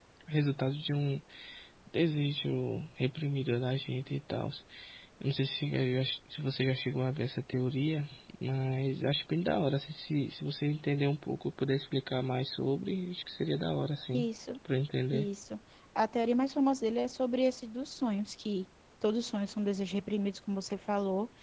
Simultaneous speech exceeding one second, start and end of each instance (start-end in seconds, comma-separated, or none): none